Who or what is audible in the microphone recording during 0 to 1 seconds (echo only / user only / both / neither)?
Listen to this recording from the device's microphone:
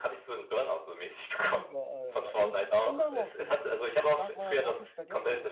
echo only